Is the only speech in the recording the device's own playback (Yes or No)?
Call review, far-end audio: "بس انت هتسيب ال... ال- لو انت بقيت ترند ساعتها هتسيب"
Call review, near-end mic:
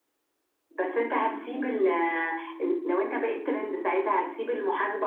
Yes